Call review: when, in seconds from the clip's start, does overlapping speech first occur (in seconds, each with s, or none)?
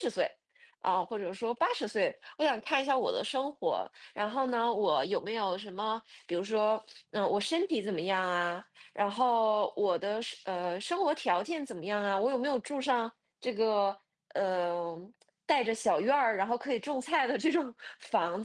none